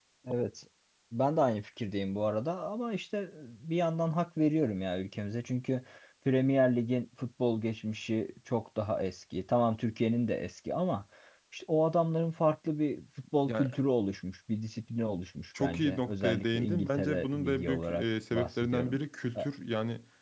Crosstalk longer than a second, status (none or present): present